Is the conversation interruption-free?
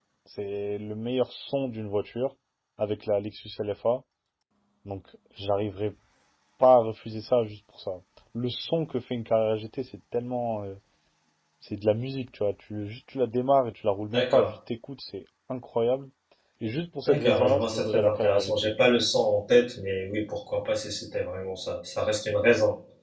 No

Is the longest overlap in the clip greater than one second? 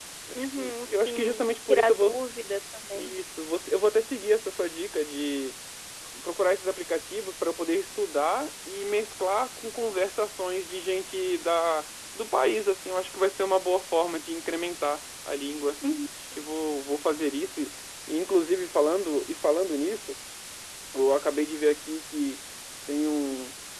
Yes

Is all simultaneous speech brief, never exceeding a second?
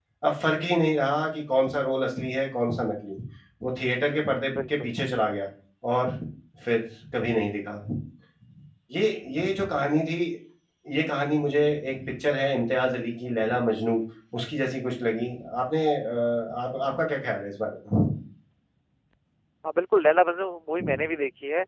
Yes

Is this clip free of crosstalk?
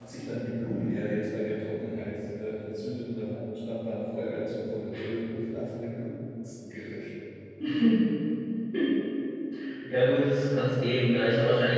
Yes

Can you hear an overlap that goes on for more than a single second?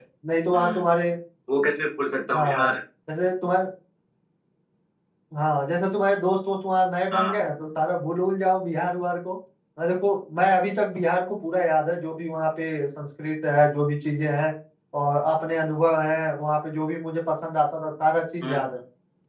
No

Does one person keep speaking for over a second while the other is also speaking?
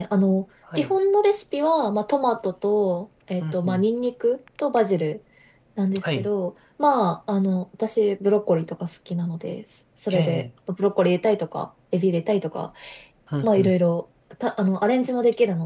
No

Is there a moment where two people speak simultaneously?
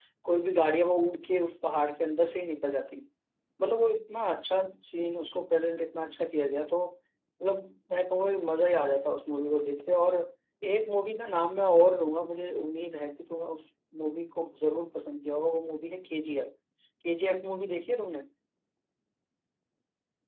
No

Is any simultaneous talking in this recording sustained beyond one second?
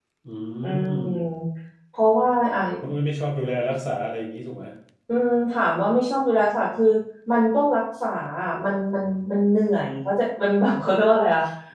No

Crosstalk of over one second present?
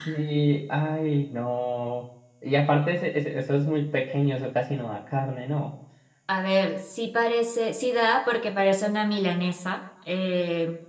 No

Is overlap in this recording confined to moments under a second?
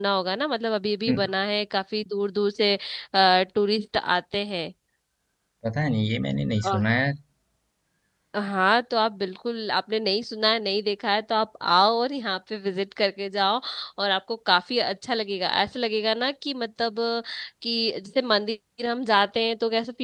Yes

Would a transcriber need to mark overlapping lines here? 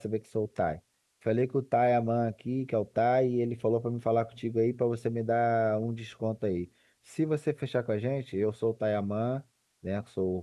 No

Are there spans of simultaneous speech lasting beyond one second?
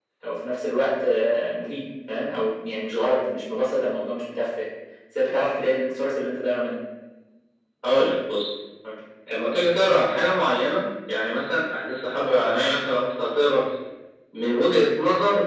No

